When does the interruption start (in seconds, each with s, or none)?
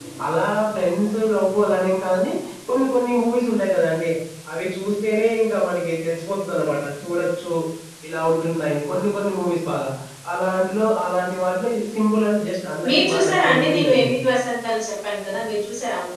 12.8 s